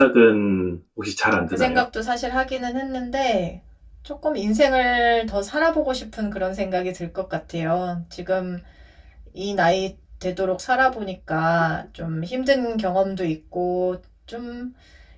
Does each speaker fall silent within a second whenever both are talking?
Yes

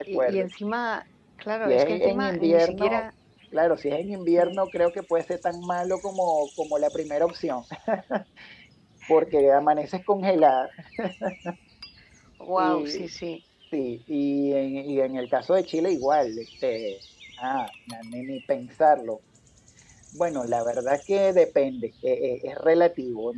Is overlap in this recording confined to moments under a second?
No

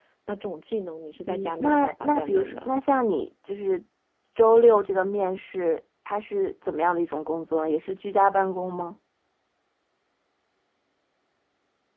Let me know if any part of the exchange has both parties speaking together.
Yes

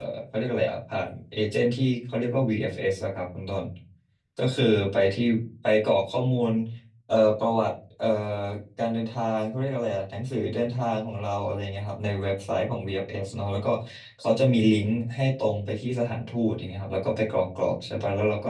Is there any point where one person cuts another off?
No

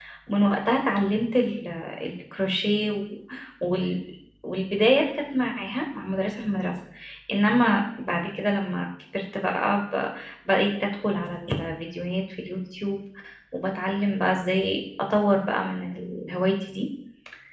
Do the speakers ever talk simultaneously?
No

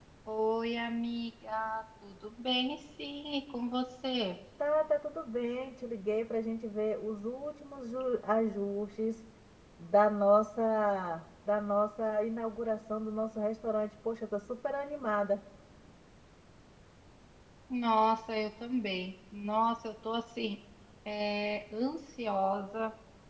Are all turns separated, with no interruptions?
Yes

